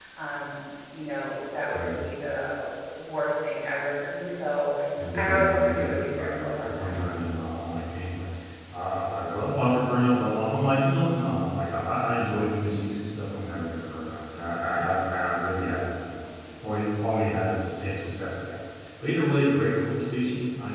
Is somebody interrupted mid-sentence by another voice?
Yes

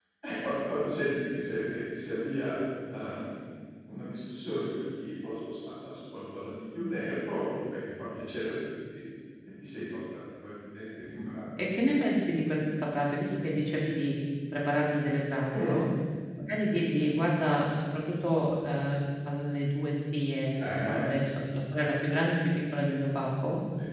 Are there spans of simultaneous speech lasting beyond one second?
No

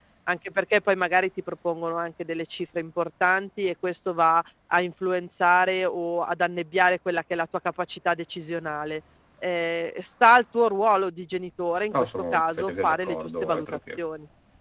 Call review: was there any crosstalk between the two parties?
Yes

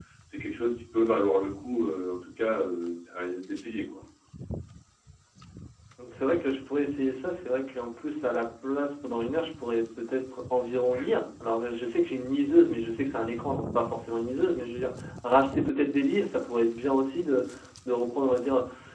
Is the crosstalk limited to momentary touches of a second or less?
Yes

